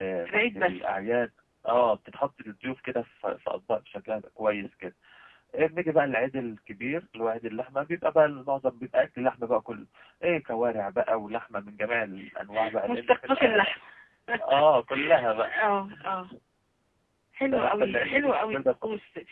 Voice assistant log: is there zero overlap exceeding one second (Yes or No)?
No